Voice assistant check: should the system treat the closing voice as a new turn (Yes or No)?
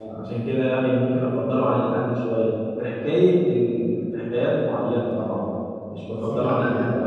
Yes